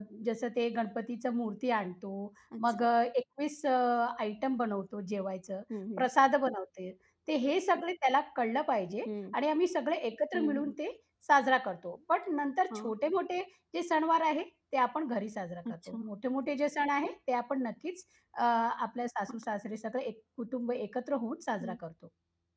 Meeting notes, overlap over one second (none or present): none